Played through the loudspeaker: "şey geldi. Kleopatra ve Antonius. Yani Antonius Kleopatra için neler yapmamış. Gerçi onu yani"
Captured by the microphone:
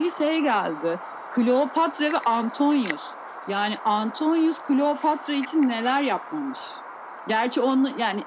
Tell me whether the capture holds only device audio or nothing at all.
Yes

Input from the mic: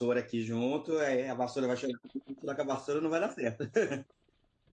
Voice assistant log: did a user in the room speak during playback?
Yes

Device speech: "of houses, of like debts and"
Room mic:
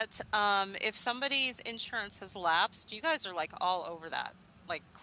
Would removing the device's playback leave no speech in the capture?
No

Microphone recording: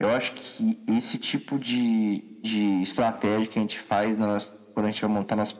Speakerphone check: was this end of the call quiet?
Yes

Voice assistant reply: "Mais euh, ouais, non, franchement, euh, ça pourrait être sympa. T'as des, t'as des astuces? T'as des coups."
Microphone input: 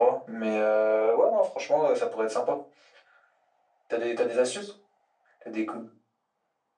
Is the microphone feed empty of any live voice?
Yes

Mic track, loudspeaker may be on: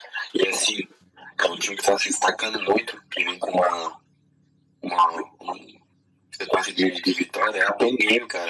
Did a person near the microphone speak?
No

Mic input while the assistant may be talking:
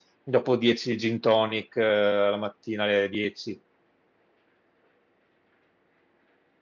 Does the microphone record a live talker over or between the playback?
Yes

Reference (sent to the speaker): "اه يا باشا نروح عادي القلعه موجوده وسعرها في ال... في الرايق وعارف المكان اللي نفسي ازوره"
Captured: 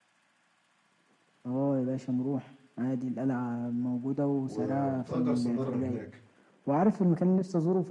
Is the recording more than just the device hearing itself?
Yes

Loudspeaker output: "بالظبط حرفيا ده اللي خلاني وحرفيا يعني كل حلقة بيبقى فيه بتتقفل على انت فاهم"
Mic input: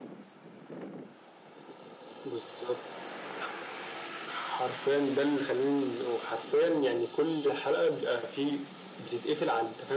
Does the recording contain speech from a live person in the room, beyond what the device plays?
No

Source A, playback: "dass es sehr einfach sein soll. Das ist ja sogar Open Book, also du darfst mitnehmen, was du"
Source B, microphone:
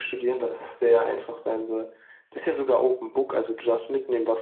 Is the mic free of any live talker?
Yes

